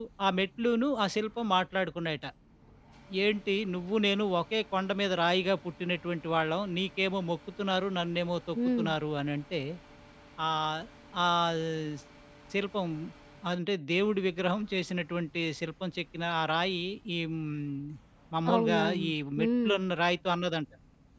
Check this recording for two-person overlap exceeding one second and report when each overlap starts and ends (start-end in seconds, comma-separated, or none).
18.5-19.8